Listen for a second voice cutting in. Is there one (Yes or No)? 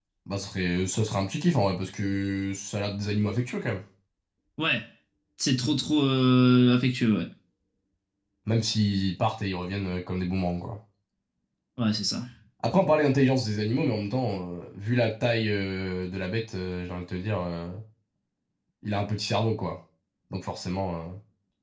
No